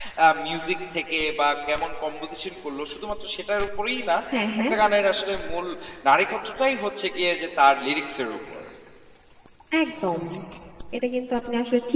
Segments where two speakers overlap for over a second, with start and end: none

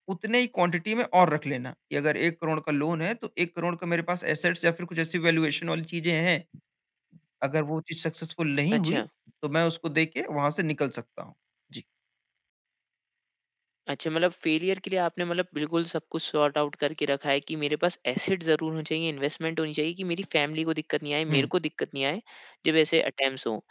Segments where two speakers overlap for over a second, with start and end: none

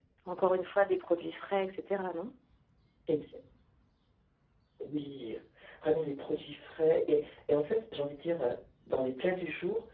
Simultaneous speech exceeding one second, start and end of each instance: none

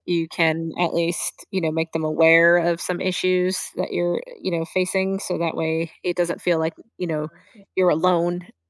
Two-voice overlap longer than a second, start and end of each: none

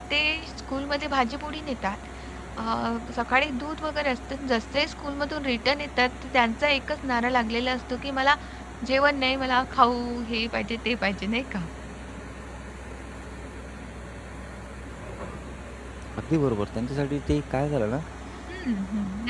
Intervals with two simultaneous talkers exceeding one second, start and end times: none

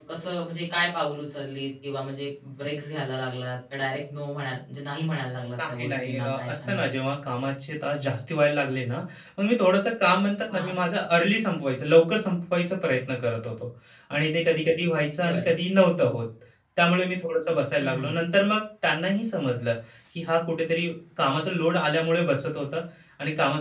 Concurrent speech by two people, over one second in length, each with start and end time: 5.7-6.9

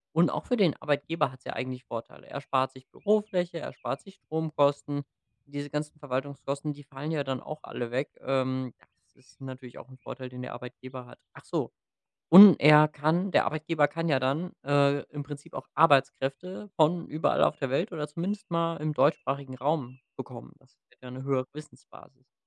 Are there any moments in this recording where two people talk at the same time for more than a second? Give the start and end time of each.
none

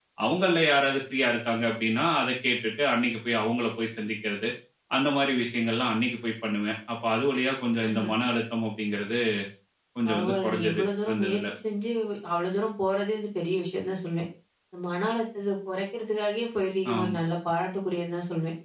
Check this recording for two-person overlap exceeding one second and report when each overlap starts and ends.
10.1-11.4

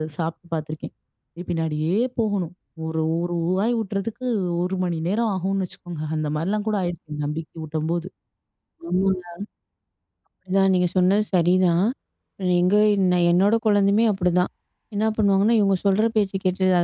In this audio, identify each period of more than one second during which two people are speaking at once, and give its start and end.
none

